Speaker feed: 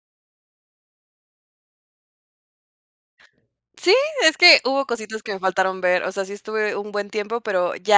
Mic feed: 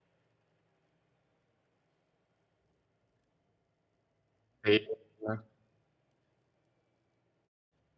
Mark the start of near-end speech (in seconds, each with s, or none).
4.6 s